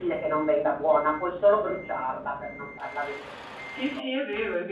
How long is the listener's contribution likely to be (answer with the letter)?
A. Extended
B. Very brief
A